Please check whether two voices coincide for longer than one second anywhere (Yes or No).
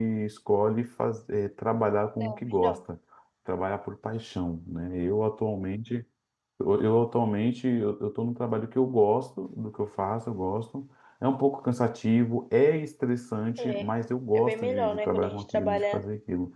Yes